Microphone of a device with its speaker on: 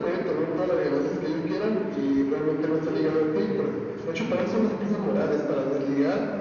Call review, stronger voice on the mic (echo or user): echo